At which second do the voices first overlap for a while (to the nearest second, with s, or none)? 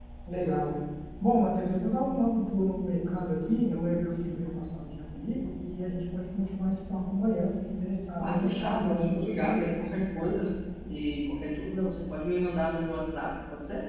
8 s